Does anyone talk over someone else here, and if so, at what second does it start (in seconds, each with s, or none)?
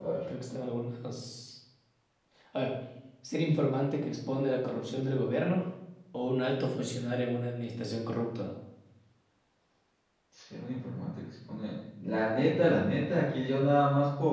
none